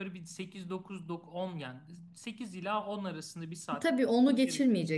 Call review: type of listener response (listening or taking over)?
taking over